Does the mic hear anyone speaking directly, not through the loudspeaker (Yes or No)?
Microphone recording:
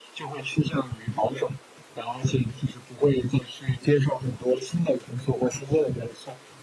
No